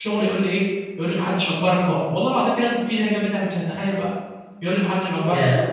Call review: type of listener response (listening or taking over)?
taking over